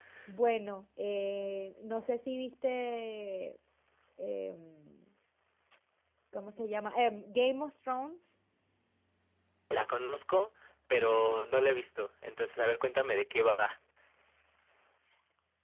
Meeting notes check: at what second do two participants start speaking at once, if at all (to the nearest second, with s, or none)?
none